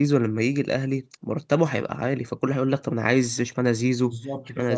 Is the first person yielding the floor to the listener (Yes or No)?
Yes